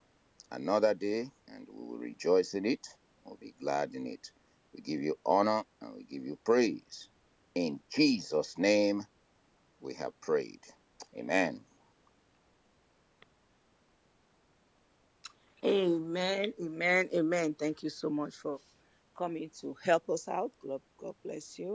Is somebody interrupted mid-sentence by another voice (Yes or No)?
No